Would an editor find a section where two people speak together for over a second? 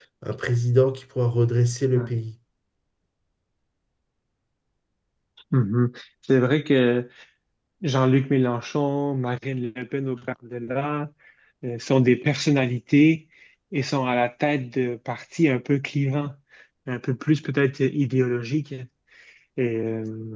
No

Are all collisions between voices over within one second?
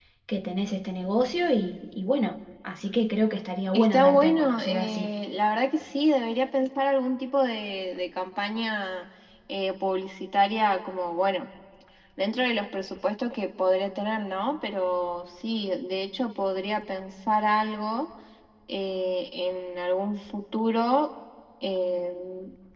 No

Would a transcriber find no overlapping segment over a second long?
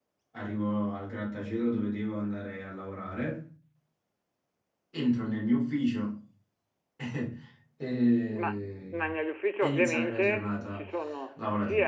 No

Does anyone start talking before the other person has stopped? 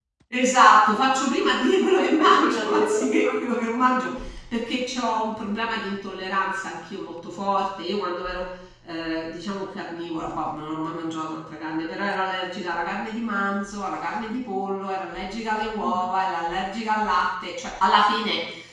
Yes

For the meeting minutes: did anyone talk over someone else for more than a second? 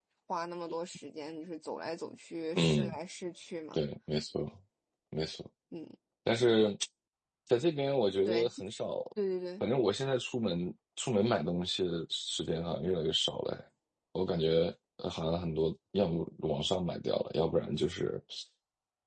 No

